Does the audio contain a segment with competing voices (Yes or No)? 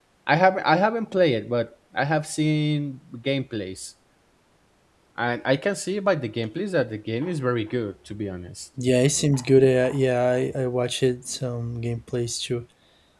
No